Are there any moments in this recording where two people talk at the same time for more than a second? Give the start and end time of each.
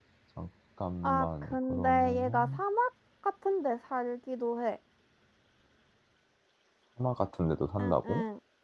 1.0-2.6

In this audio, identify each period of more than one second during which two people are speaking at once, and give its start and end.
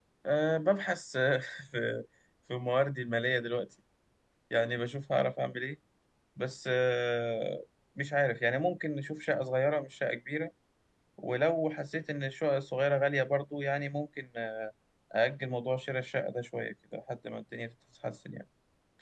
none

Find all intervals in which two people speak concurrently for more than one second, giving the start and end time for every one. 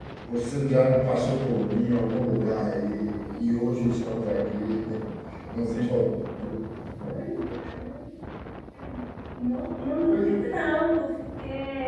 none

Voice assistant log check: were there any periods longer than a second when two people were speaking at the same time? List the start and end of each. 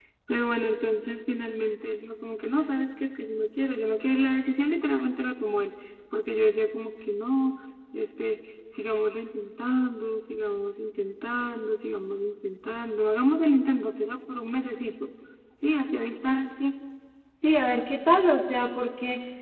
none

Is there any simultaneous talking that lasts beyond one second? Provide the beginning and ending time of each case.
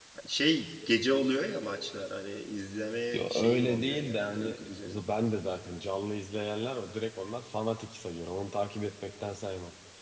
3.1-5.0

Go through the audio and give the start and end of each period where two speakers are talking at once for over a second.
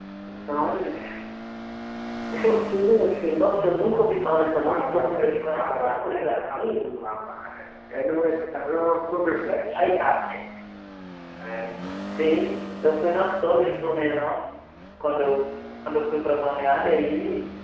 4.6-6.8

